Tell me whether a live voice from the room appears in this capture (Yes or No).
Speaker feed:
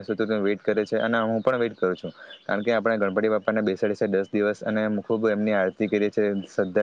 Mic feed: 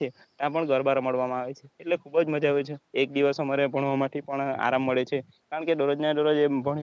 Yes